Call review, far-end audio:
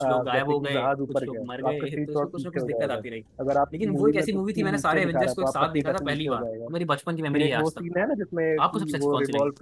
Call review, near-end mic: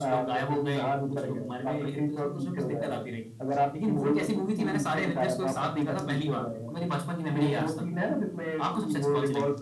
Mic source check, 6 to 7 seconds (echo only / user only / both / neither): echo only